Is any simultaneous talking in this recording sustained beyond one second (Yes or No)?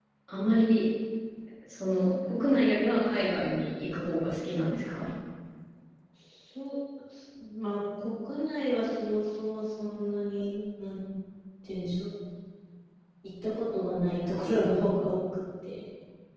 No